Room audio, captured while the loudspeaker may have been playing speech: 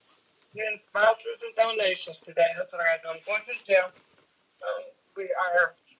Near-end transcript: none

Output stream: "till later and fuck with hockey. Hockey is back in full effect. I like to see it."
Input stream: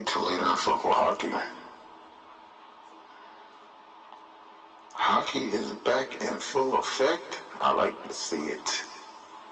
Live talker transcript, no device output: none

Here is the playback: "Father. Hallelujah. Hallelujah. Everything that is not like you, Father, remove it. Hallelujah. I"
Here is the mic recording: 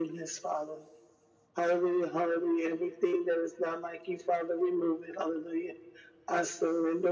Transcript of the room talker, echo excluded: none

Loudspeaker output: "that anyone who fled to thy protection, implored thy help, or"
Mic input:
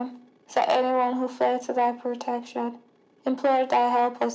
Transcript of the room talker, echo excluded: none

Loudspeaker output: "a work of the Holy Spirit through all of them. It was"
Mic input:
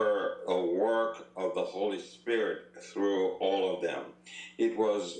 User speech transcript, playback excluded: none

